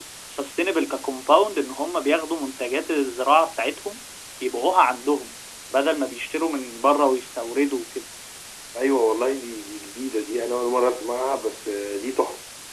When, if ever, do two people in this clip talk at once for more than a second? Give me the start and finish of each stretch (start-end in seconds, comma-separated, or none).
none